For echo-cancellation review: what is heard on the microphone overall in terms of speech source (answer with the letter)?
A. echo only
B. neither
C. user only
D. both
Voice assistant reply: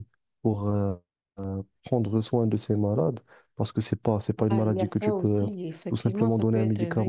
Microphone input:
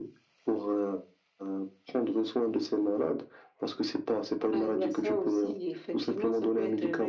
A